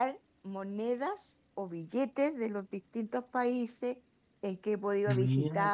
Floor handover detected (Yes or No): No